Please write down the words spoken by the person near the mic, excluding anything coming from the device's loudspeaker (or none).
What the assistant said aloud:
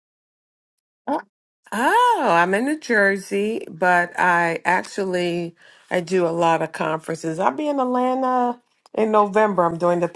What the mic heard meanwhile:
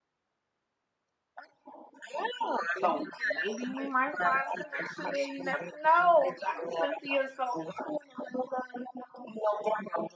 So maybe we might find a connection there. You never know, Dr. Cynthia. So